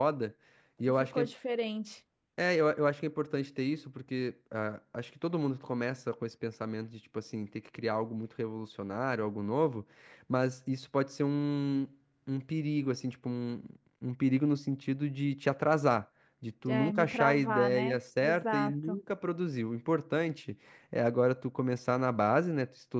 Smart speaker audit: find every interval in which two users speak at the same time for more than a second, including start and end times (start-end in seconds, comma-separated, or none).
16.7-19.0